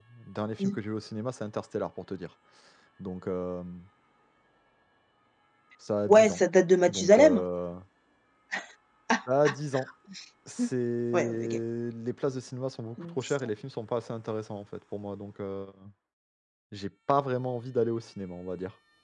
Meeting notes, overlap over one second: none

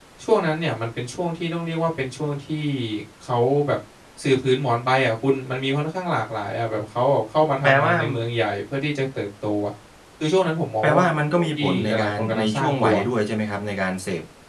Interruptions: present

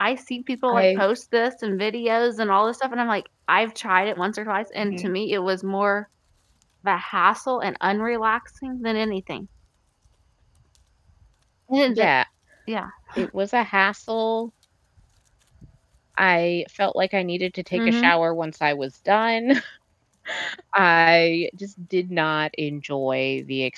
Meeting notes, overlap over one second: none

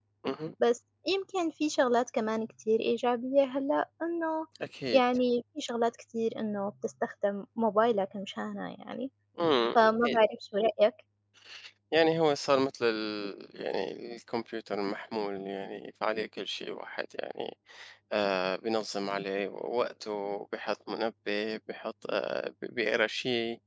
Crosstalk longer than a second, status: none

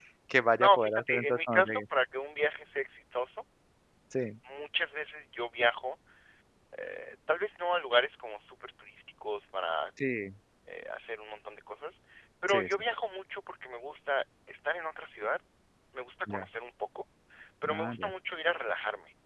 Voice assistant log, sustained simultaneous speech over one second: present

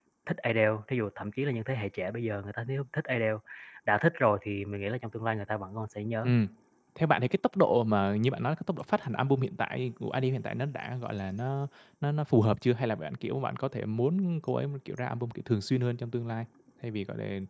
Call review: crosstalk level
none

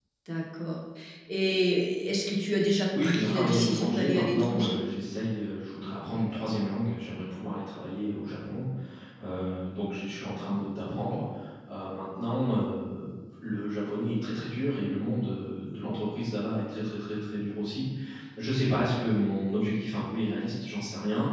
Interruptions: present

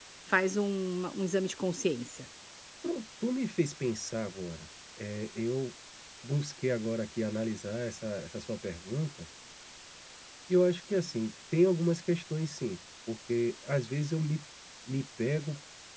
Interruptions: none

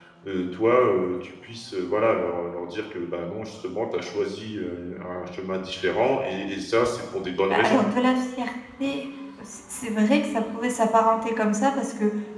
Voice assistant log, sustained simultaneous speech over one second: none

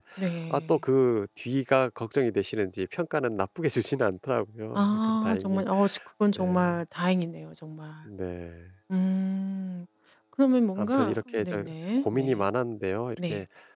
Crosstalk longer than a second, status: present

